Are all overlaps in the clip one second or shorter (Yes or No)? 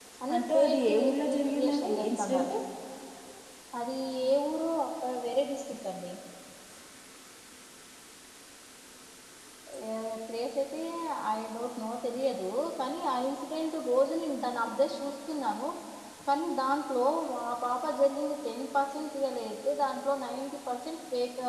No